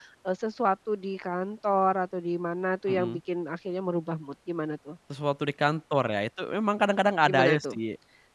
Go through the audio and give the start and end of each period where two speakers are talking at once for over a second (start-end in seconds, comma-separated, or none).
none